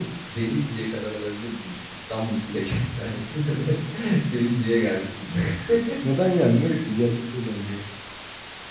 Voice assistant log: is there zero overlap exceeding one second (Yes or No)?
Yes